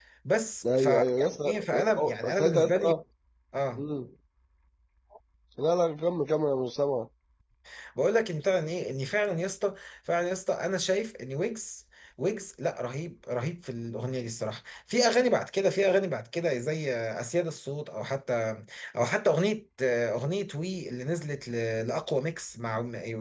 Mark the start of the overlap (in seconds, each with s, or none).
0.7 s